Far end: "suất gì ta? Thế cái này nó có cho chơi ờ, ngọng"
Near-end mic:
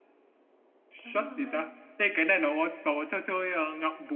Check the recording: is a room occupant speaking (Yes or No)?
Yes